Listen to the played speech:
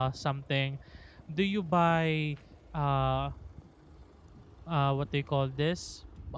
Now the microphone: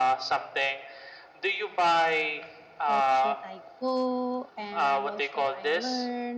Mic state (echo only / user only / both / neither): both